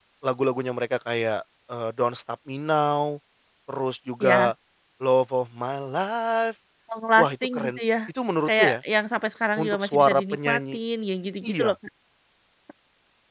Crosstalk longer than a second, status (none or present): present